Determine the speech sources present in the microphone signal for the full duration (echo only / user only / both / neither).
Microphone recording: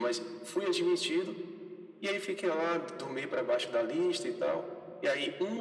echo only